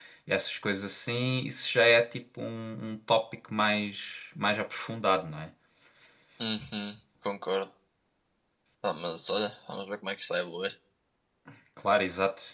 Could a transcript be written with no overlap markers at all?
Yes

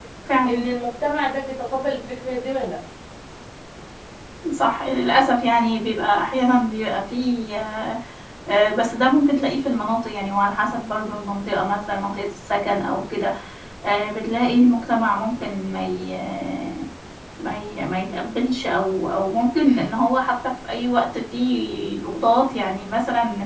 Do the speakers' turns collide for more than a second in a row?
No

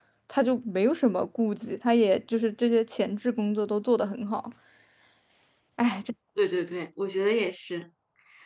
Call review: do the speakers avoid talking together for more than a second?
Yes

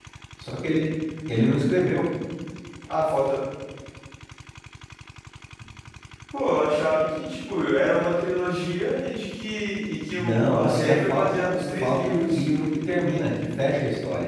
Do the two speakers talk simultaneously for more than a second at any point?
Yes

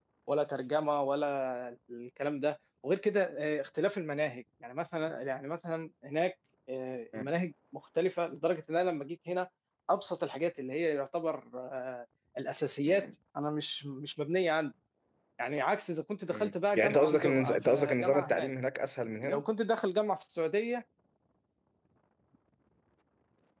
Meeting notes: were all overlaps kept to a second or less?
No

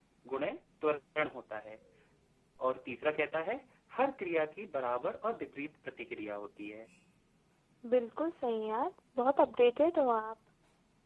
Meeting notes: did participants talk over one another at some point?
No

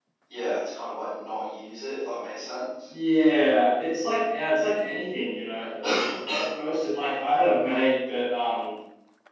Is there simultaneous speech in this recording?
No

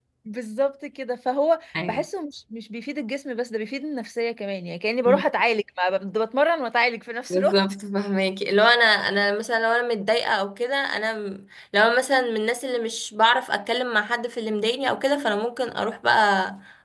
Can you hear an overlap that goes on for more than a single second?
No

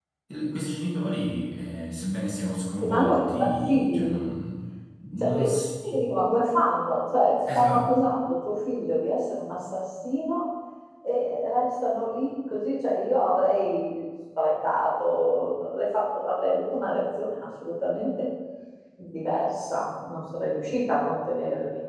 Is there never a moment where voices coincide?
No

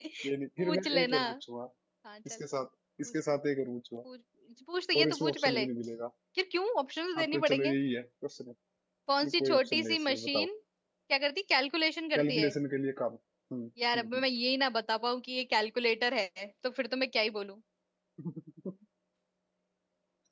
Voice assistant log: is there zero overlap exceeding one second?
No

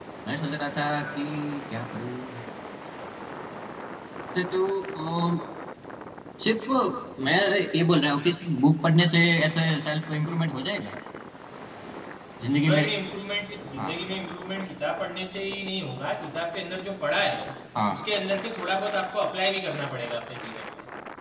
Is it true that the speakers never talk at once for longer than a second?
Yes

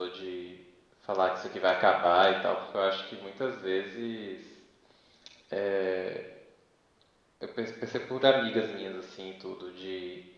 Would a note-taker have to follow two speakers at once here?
No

